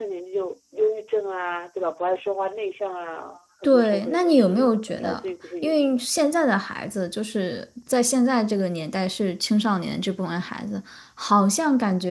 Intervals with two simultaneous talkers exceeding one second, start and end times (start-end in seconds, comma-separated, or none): 3.6-5.2